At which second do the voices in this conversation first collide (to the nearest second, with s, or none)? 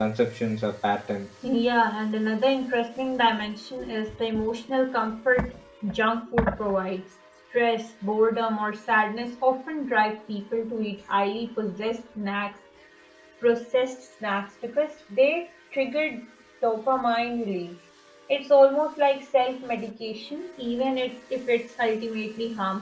none